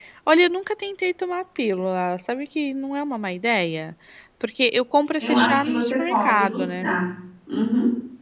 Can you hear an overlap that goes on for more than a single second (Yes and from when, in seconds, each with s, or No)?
Yes, from 5.2 s